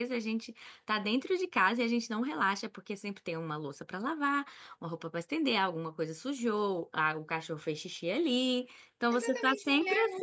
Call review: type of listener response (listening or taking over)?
taking over